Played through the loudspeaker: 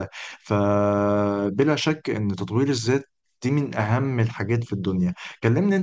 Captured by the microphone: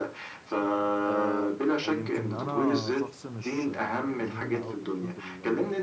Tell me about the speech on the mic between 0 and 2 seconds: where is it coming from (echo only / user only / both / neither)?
both